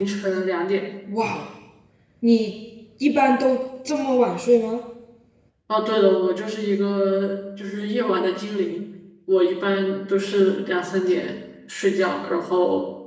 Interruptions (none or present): none